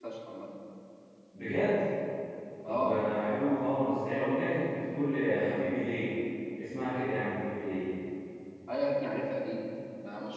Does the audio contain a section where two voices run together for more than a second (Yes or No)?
No